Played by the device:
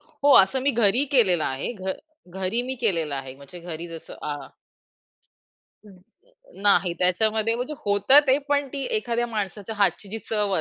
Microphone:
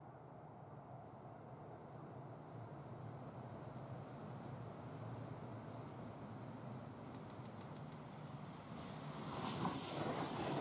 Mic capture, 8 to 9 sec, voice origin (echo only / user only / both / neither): neither